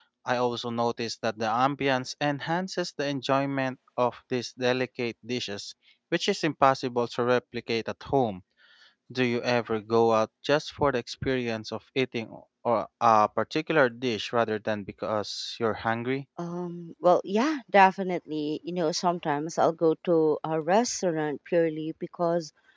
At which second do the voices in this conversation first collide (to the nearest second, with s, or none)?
none